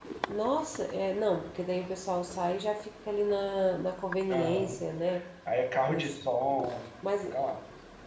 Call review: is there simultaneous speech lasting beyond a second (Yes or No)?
No